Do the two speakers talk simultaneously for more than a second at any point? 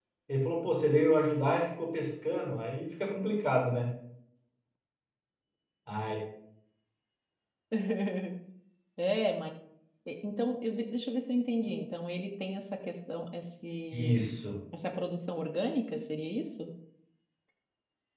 No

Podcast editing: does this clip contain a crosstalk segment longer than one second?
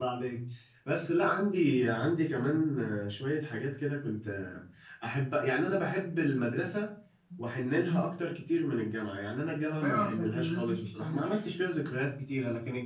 Yes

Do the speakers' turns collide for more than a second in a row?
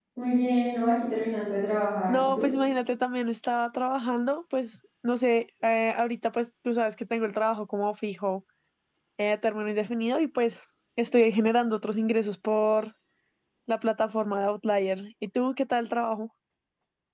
No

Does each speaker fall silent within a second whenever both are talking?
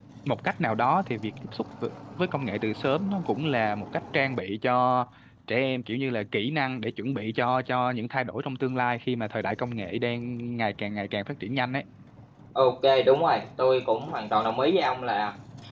Yes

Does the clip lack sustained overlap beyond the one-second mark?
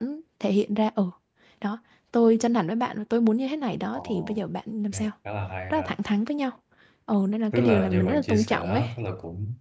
No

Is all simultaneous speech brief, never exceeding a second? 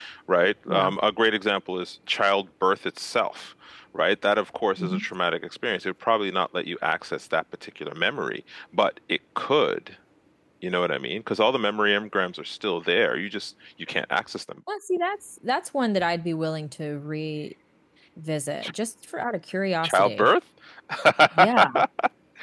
Yes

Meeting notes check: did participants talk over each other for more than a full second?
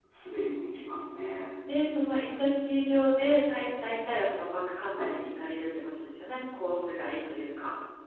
No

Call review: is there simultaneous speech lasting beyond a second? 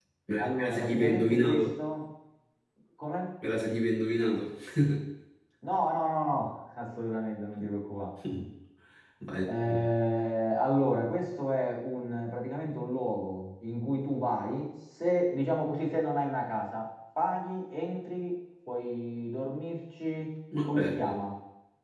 Yes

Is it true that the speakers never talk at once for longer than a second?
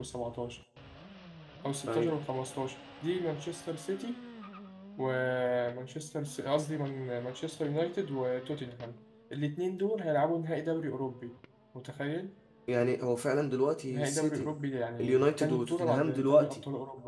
No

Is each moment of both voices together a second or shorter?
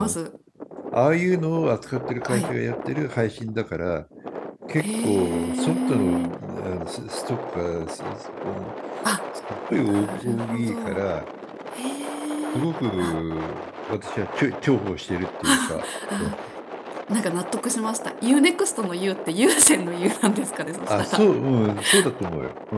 No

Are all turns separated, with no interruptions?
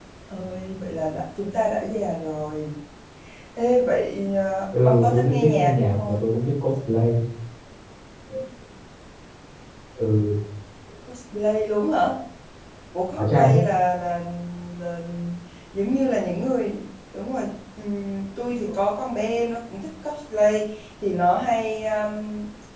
No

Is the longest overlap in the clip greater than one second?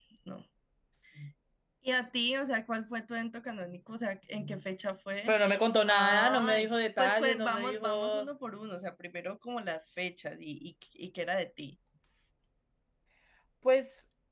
Yes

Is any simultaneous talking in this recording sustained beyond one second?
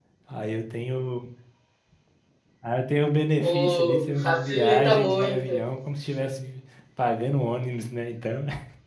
Yes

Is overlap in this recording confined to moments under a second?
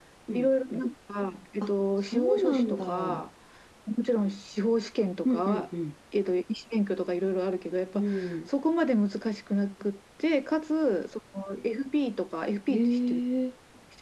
No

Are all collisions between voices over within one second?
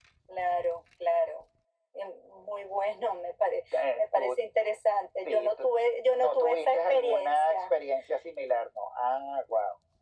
No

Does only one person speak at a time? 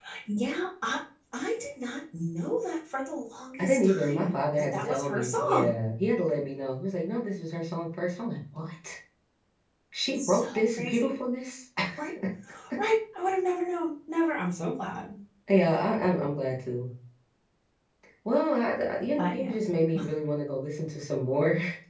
No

